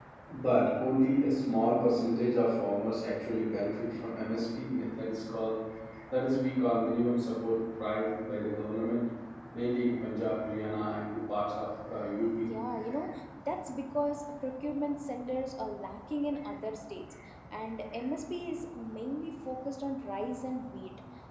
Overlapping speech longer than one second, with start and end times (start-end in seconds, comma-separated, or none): none